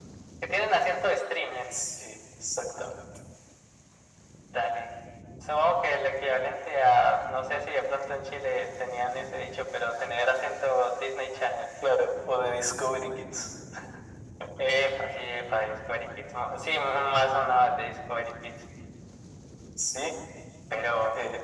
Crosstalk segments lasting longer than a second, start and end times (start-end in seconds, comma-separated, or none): none